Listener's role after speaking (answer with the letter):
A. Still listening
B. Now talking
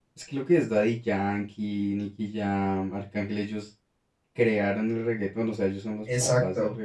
B